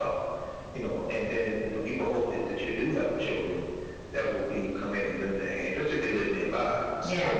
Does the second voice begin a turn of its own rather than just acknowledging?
Yes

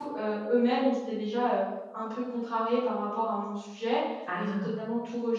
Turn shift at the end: No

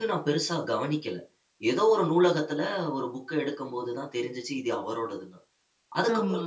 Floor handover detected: No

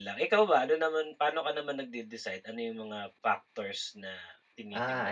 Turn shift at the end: Yes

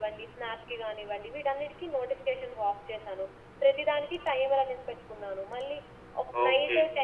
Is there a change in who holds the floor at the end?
Yes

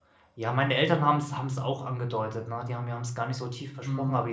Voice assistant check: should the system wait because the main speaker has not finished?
Yes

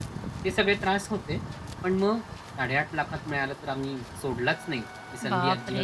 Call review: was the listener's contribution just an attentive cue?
No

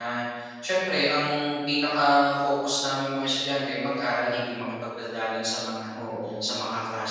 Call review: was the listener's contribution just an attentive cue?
Yes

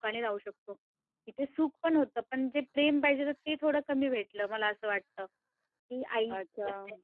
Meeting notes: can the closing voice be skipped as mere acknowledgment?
No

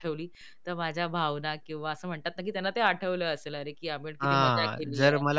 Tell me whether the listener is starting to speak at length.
Yes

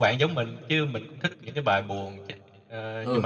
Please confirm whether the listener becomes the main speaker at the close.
Yes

